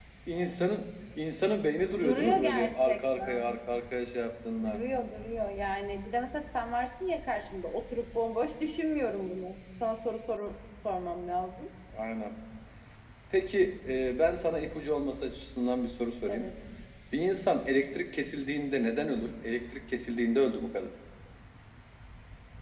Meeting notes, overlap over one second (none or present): present